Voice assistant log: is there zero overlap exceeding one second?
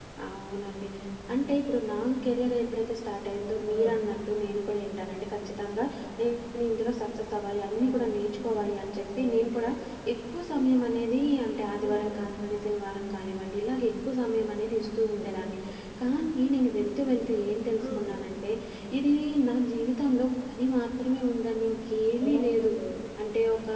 Yes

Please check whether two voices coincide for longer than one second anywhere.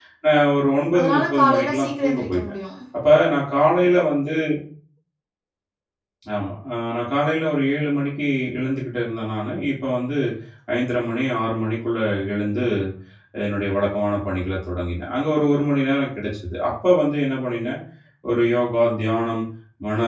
Yes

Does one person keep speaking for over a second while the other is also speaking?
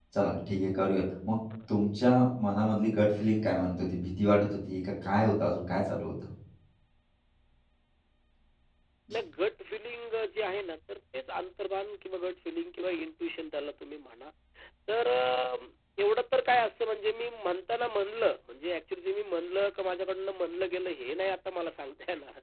No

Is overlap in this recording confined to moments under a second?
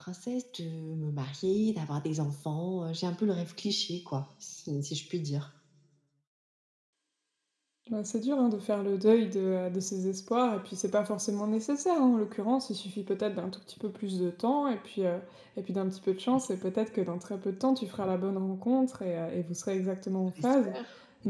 Yes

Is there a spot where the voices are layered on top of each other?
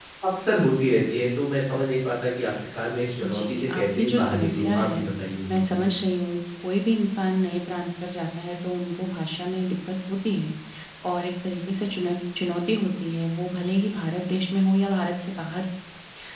Yes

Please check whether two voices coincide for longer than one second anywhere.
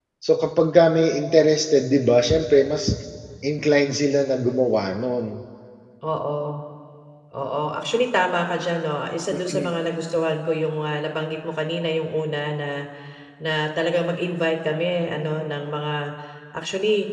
No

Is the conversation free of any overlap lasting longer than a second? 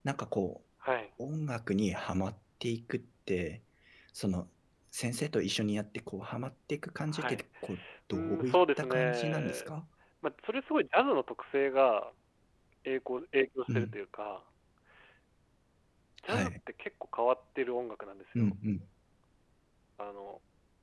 No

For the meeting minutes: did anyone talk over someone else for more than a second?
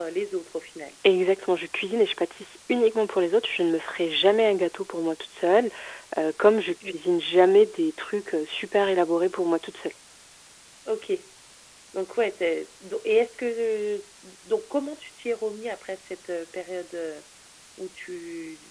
No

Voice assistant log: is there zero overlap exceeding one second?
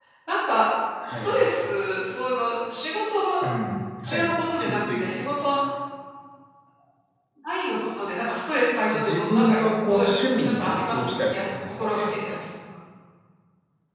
No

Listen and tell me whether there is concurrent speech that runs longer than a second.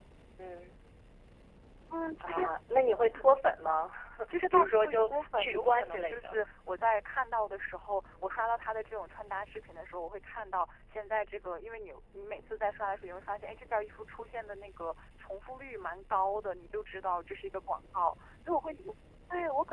Yes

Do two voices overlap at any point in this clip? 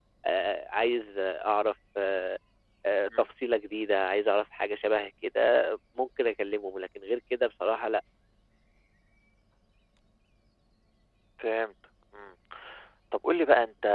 No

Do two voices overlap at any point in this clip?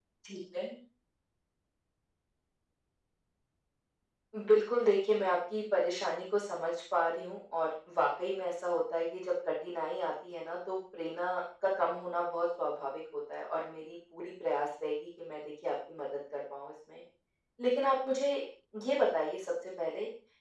No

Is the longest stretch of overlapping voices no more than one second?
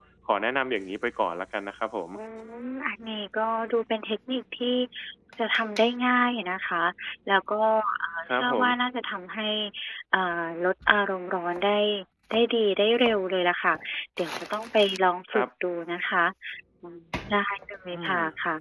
Yes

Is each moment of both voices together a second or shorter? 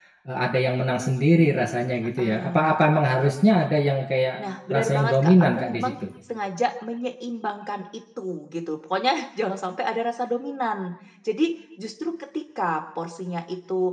No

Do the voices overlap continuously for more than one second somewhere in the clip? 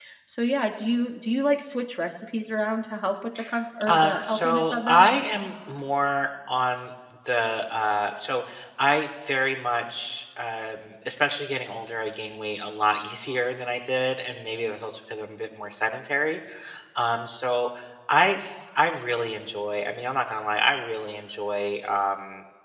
Yes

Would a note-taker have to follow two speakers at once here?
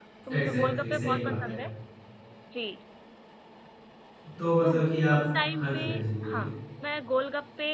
Yes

